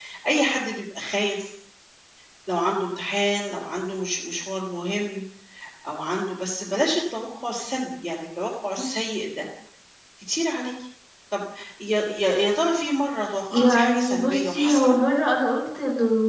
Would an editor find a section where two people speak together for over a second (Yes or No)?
Yes